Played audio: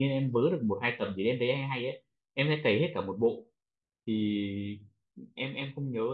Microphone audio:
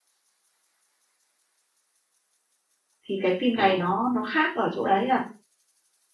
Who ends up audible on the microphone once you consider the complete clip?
user only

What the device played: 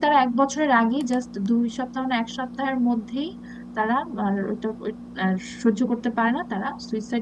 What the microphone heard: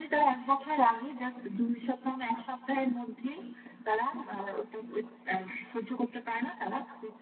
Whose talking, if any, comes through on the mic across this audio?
echo only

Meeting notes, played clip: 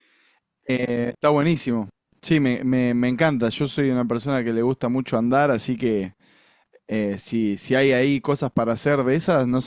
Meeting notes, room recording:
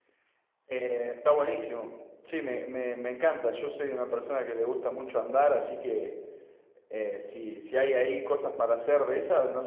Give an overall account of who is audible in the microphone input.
echo only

